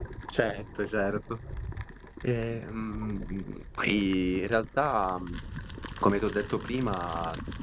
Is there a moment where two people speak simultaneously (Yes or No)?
No